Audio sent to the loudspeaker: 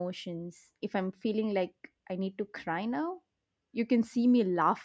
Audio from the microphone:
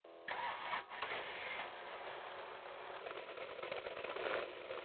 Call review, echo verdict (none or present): none